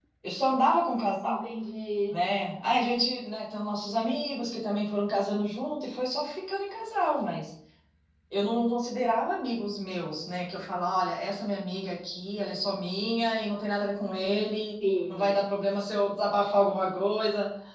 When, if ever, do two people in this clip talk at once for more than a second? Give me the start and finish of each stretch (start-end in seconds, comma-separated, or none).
none